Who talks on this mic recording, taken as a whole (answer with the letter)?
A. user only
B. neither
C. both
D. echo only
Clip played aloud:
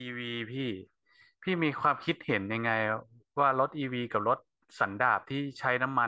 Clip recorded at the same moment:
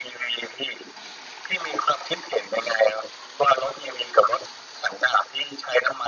D